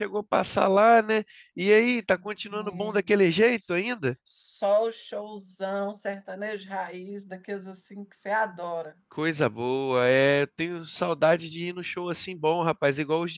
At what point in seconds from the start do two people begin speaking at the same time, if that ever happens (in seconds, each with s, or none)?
2.5 s